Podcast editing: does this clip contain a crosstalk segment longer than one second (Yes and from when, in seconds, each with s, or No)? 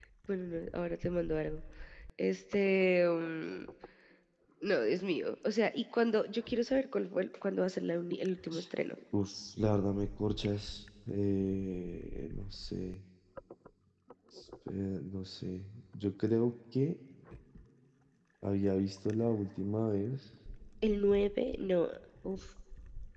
No